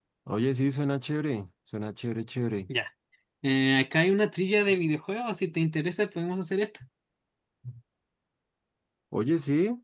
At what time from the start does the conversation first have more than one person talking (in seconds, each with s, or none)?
none